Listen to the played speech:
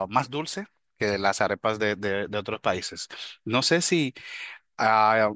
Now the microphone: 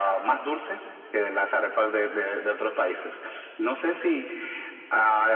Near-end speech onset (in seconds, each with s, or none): none